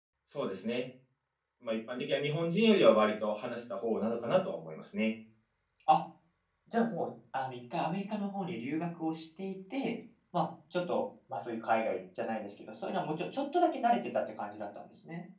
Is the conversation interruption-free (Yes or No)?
Yes